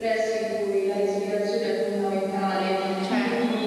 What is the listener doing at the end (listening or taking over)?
listening